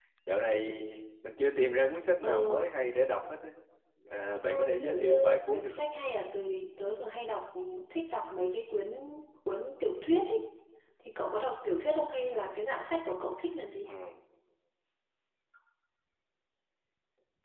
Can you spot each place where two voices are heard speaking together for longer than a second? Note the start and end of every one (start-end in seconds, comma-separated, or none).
4.5-5.9